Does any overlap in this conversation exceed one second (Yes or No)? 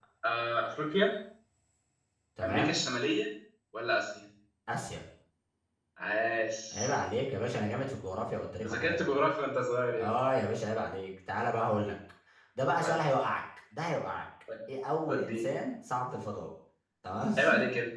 No